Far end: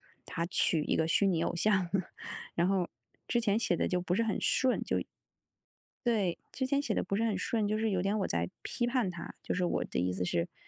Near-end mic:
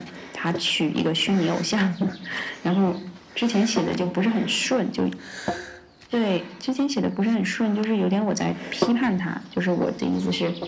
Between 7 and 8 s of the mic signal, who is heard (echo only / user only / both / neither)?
echo only